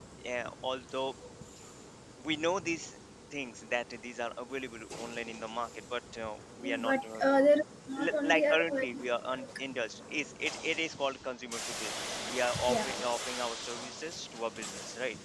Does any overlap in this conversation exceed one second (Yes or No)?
Yes